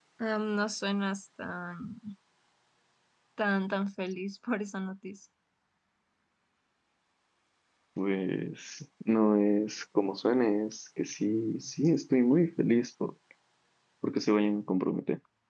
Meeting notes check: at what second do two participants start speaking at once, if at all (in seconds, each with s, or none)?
none